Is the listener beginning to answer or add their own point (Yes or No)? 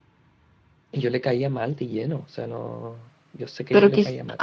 Yes